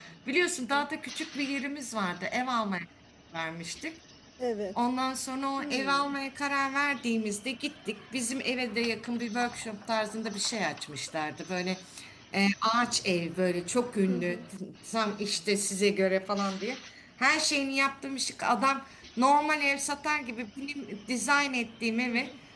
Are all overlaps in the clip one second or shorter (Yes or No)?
Yes